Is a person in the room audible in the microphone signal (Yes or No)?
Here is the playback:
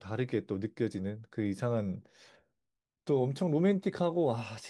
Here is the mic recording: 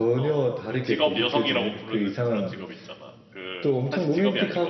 Yes